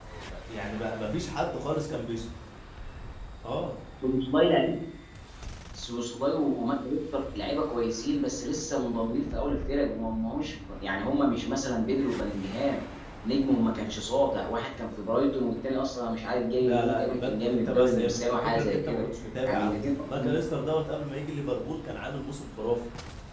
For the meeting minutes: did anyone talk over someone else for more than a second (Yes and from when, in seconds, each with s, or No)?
Yes, from 16.6 s